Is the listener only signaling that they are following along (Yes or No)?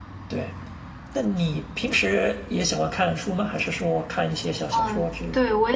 No